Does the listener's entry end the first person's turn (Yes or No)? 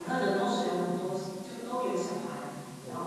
No